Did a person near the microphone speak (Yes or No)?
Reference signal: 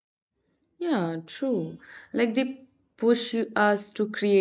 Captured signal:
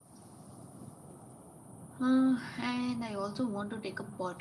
Yes